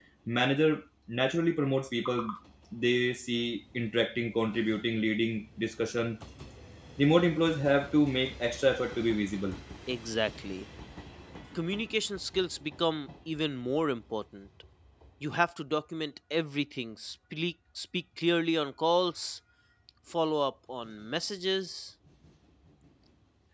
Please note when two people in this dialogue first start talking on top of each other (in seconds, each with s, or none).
none